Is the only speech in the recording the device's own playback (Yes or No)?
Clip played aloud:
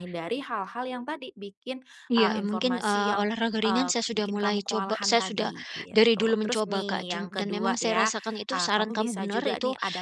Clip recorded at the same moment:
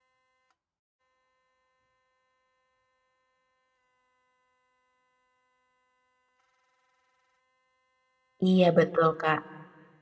No